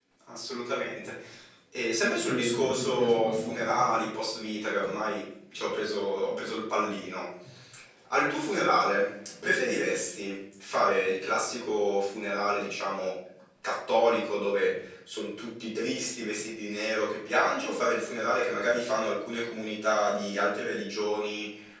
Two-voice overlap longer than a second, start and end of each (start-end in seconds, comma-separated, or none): 2.3-3.7